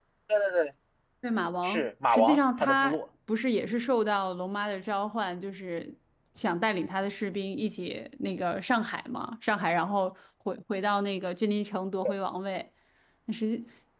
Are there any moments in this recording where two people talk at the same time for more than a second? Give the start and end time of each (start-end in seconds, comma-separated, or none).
1.6-3.0